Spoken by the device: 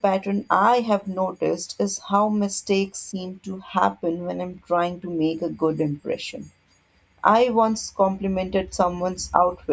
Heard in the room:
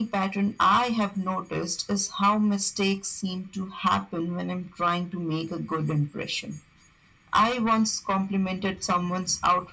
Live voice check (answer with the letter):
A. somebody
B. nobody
B